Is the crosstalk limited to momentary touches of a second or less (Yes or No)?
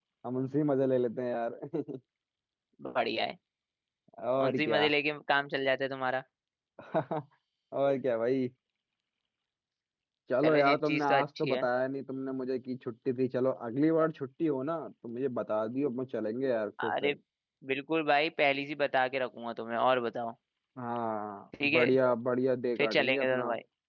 No